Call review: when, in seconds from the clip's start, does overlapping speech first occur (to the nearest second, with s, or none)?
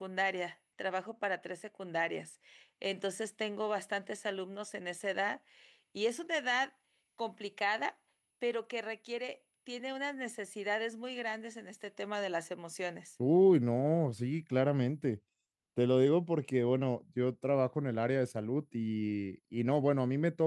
none